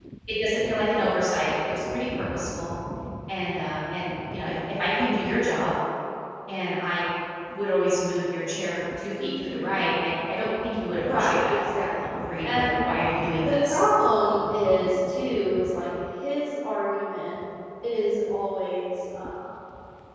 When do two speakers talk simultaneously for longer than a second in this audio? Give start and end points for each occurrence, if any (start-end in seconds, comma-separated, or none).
11.0-12.7